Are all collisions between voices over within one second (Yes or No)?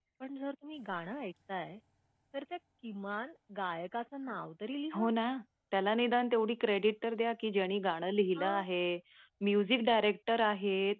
Yes